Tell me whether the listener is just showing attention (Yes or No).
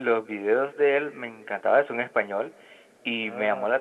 Yes